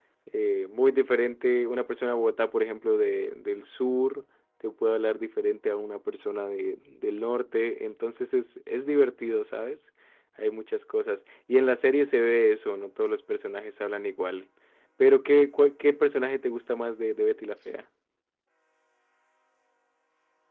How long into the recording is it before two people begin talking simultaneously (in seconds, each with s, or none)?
none